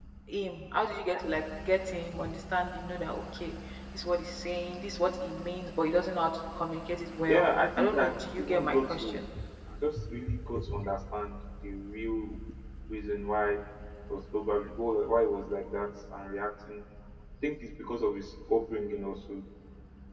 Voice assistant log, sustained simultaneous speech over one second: present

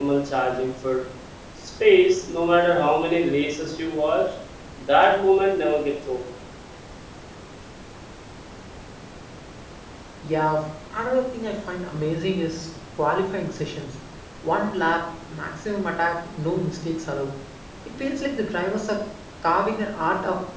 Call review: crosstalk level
none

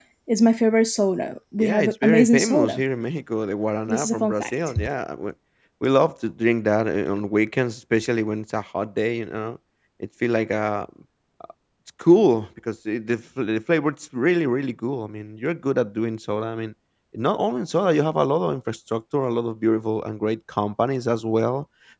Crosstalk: present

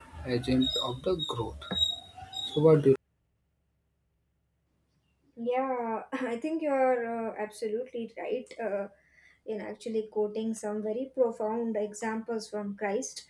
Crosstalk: none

